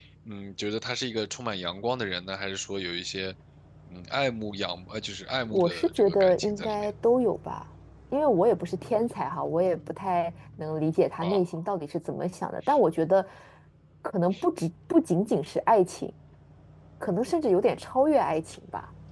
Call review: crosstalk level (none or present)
present